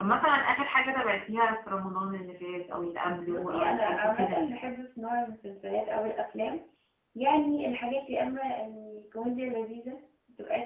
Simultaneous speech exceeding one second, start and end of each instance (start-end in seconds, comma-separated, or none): 3.3-4.5